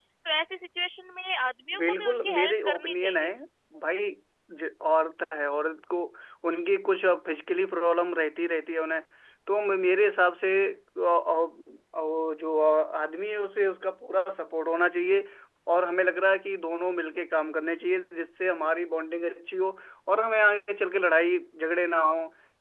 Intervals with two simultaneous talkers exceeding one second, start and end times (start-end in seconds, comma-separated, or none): 1.8-3.3